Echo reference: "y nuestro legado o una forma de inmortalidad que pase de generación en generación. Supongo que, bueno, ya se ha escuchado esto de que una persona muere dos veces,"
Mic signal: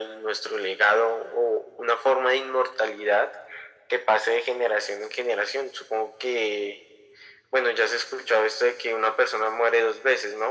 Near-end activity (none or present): none